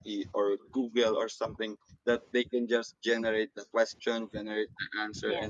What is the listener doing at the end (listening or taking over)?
listening